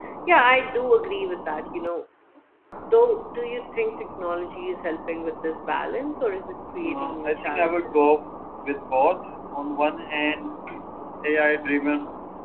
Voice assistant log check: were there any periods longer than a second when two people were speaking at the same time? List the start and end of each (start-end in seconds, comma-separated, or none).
6.8-8.1